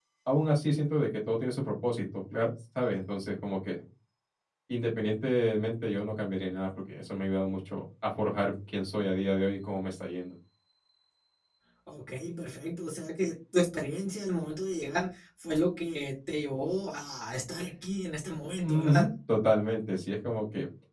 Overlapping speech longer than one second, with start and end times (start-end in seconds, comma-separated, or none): none